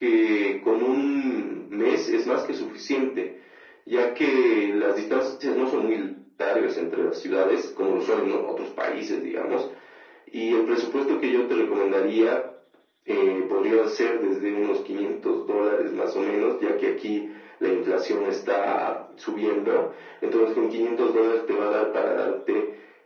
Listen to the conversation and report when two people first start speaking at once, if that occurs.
none

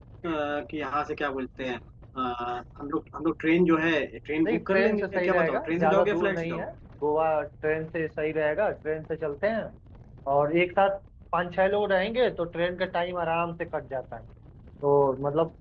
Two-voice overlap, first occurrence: 4.4 s

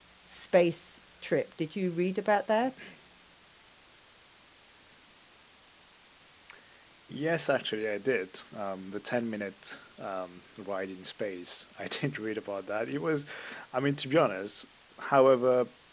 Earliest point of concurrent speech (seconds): none

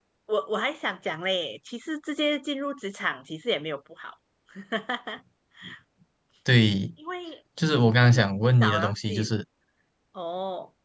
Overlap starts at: 8.0 s

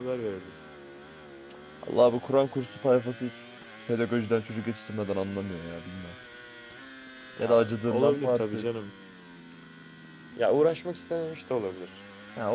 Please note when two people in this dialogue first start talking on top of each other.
7.4 s

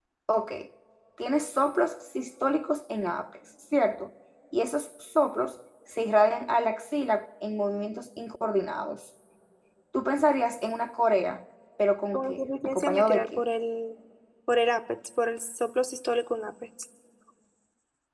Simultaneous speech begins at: 12.1 s

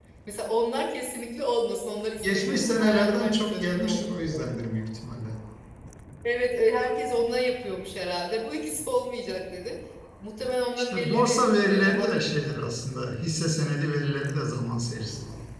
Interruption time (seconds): 2.2 s

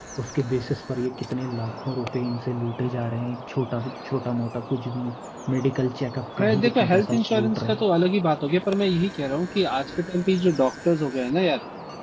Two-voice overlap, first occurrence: 6.4 s

